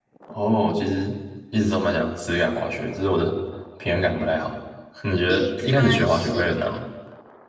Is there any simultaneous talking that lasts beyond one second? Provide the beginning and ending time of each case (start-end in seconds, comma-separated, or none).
5.3-6.8